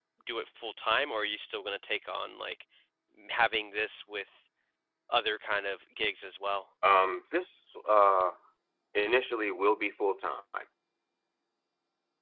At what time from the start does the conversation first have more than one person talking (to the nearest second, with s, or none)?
none